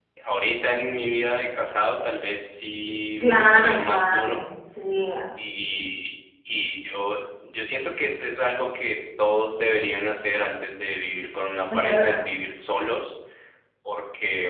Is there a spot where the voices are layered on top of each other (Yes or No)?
Yes